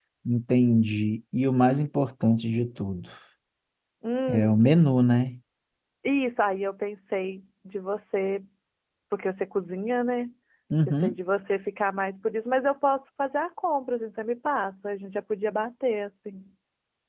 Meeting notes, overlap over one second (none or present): none